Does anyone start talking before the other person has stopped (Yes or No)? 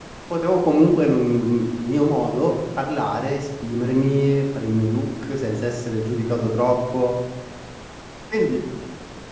No